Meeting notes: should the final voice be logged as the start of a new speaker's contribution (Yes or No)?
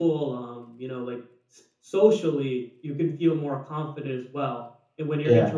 No